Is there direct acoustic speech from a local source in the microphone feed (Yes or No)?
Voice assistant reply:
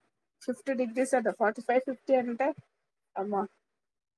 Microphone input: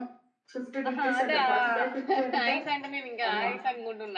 Yes